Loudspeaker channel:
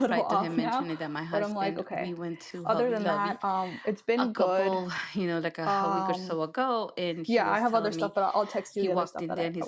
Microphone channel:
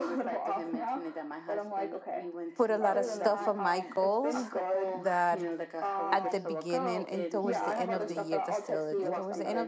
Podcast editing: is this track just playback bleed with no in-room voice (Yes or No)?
No